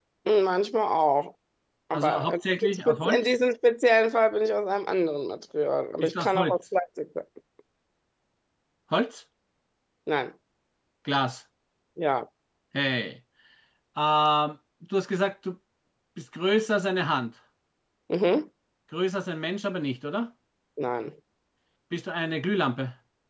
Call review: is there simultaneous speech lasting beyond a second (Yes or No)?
Yes